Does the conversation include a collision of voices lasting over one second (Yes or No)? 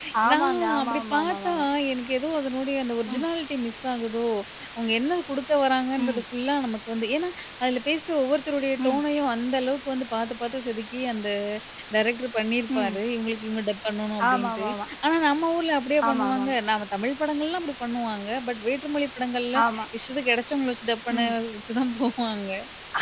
Yes